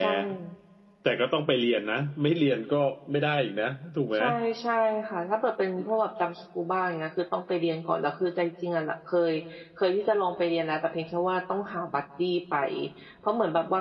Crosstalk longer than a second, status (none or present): none